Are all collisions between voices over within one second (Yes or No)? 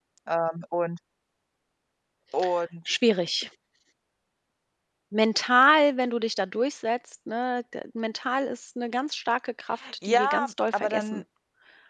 No